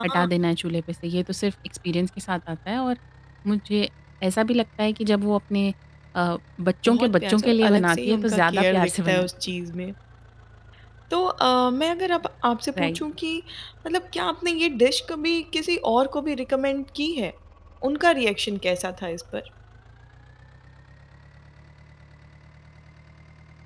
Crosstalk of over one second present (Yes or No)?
Yes